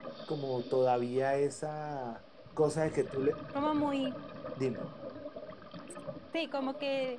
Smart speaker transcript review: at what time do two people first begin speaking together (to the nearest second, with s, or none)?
none